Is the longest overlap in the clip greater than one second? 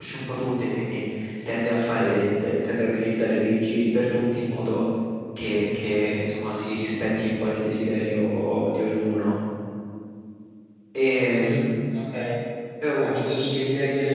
No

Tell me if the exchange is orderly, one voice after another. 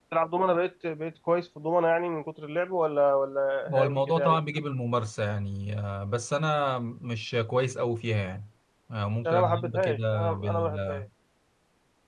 No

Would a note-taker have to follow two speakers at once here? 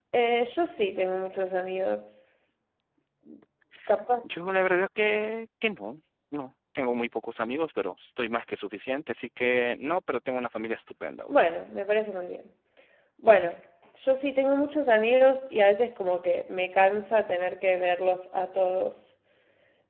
No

